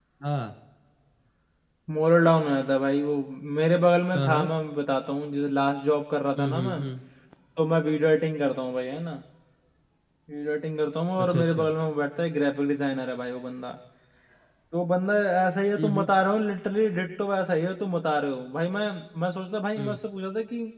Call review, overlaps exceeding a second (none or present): none